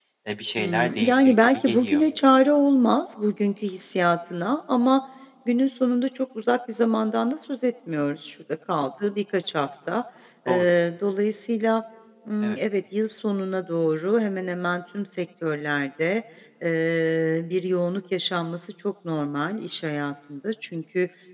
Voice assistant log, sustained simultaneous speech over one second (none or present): present